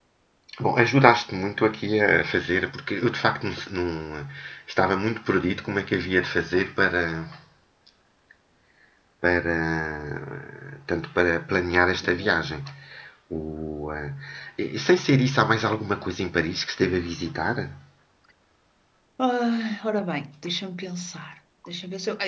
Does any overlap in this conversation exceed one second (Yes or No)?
No